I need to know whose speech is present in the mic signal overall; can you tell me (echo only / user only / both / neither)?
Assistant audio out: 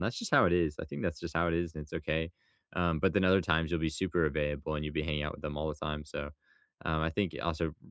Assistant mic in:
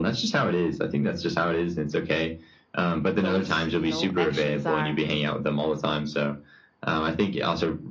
both